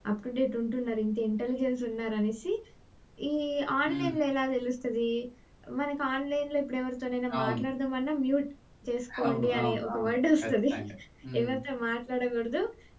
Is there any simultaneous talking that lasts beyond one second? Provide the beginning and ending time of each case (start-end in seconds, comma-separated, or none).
9.2-10.7